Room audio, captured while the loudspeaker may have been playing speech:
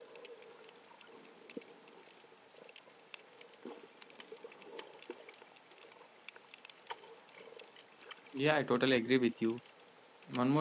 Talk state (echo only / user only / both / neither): user only